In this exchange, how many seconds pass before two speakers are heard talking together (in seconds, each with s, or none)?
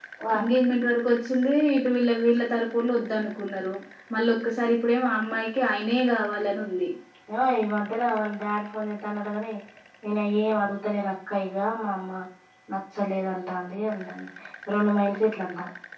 none